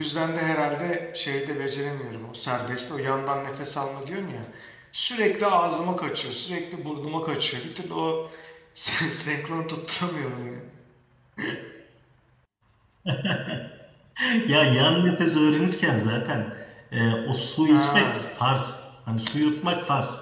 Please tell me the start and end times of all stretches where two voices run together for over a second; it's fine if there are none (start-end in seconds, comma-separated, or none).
none